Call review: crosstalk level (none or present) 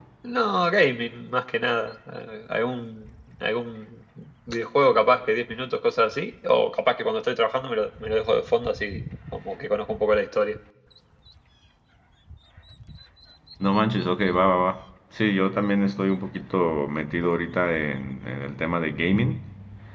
none